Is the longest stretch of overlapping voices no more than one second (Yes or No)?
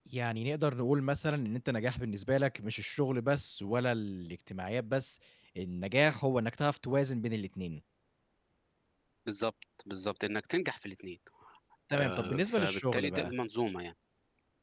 No